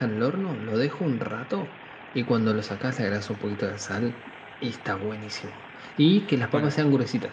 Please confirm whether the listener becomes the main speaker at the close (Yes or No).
No